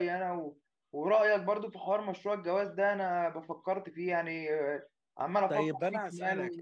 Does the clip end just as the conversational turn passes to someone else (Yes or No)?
Yes